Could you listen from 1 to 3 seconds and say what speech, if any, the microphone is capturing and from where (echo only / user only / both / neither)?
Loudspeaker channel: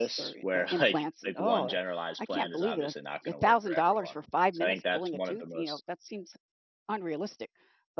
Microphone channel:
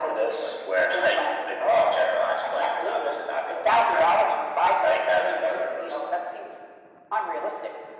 echo only